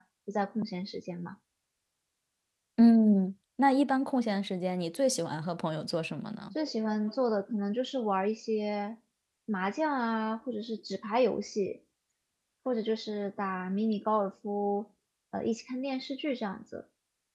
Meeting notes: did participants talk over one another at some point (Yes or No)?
No